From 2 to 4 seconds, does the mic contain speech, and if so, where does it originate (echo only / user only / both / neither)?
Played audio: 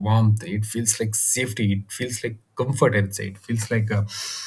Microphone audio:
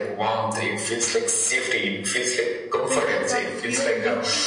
both